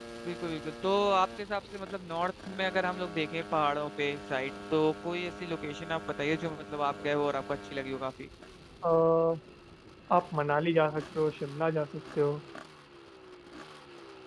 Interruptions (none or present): none